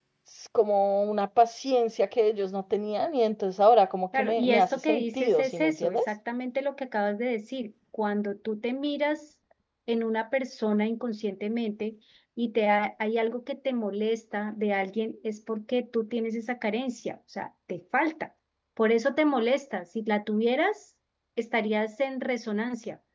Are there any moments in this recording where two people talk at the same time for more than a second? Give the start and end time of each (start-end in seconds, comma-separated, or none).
4.2-6.1